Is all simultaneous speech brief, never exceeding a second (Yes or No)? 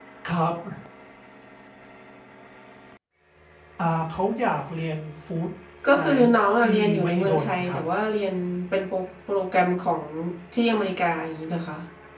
No